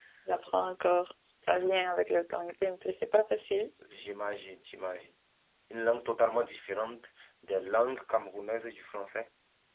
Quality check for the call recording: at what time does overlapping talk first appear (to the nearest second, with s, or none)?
none